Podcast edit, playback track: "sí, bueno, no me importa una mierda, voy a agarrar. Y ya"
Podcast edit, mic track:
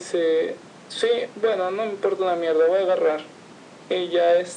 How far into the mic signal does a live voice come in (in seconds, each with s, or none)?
none